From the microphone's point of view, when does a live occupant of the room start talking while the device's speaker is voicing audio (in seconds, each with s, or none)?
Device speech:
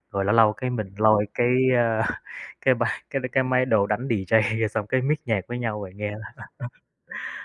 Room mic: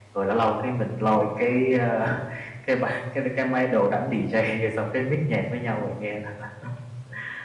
none